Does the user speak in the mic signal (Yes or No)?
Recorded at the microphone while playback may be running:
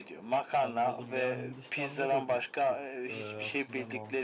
Yes